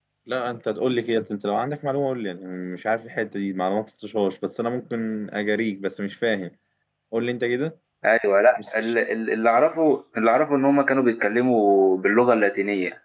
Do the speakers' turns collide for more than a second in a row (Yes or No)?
No